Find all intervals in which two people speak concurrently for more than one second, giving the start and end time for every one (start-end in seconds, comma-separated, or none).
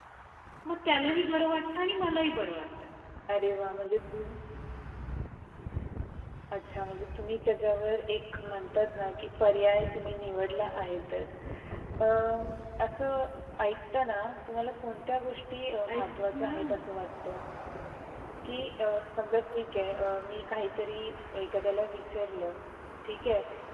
none